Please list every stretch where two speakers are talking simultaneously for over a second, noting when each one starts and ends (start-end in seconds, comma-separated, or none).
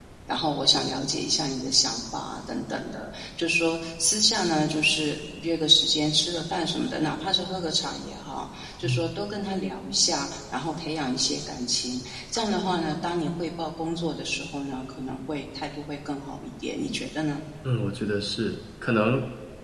none